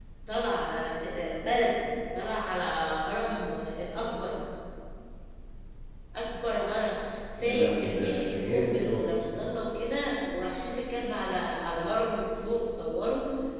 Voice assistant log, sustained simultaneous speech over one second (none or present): present